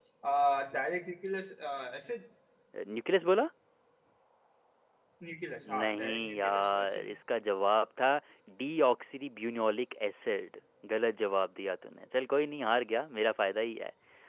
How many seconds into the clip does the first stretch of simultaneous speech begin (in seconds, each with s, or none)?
5.8 s